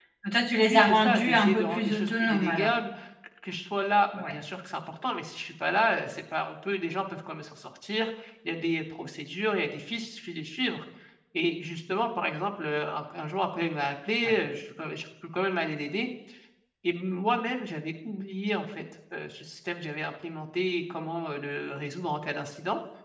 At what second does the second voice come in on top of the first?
1 s

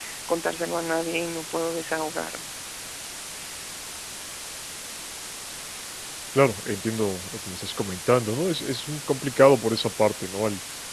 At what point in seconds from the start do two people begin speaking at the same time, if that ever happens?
none

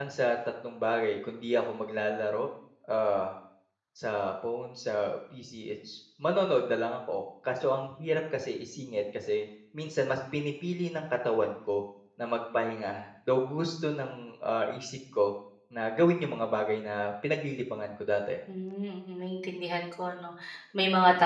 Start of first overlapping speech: none

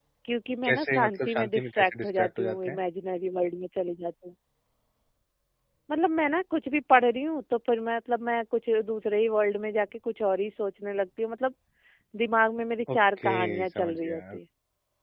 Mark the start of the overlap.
1 s

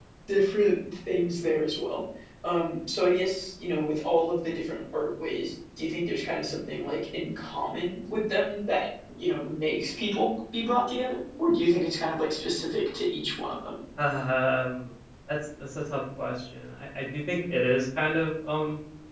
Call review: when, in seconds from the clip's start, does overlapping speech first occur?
none

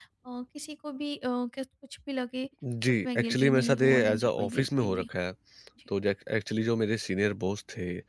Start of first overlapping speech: 3 s

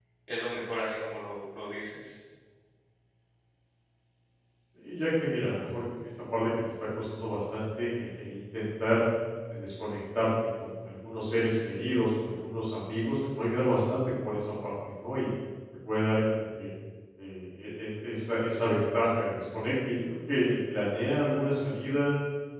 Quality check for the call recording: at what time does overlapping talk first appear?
none

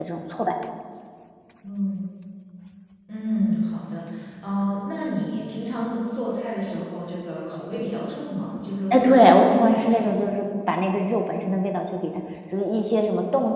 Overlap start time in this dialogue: 9 s

